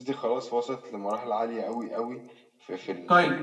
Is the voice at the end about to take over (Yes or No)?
Yes